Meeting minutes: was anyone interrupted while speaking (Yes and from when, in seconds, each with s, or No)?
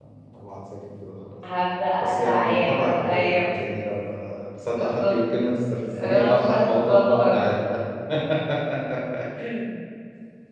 Yes, from 2.0 s